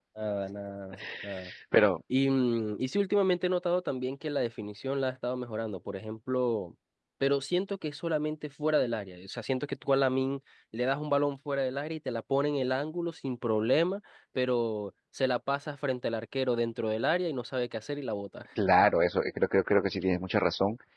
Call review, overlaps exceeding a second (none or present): none